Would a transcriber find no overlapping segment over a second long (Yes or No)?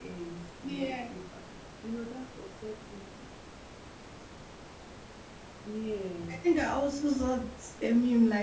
Yes